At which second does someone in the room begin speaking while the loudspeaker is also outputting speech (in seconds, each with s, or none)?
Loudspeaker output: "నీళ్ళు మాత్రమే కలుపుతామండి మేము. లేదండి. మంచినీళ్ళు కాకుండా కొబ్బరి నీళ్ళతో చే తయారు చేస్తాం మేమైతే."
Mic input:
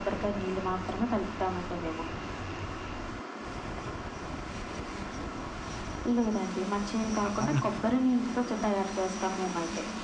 7.2 s